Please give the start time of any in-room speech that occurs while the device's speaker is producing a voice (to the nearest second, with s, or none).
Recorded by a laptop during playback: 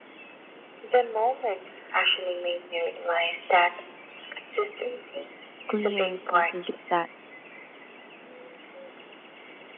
6 s